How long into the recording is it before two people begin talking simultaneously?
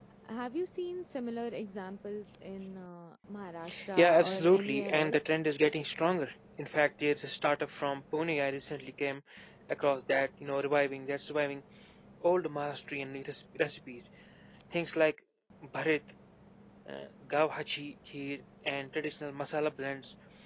4 s

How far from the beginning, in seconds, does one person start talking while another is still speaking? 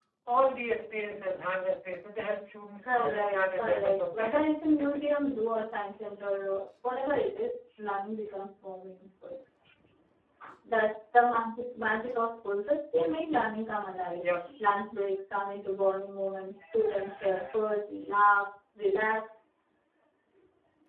3 s

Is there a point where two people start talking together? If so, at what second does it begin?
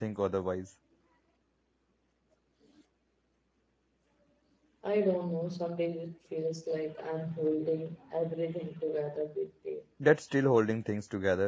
none

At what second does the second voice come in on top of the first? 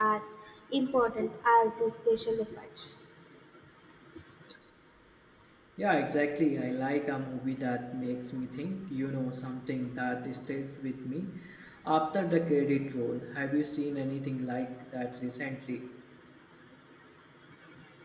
none

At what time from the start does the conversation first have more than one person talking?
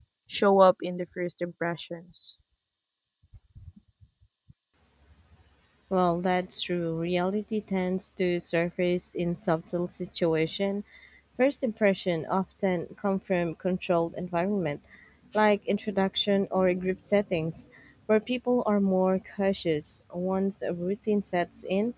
none

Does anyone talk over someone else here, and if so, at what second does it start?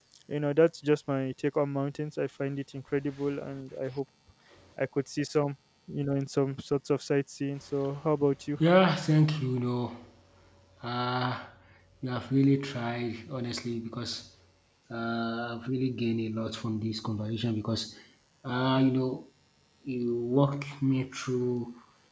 none

